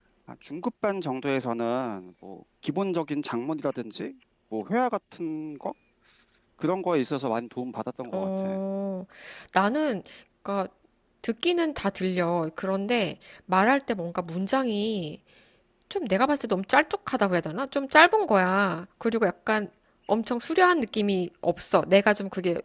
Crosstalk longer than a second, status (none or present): none